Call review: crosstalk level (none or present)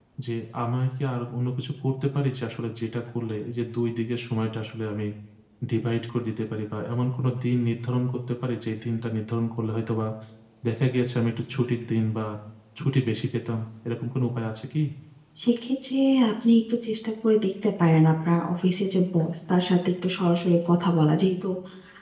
none